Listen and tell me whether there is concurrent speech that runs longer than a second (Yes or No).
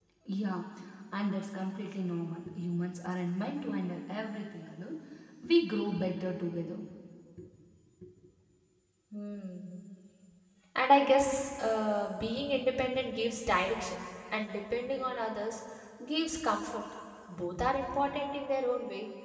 No